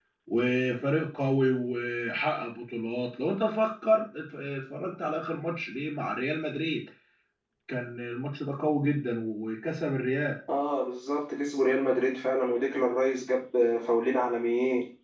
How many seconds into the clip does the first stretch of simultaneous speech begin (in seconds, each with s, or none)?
none